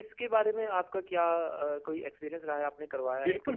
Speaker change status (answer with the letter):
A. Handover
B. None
A